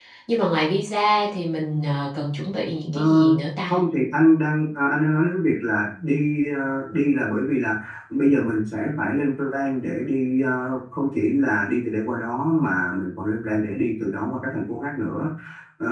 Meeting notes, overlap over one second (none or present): none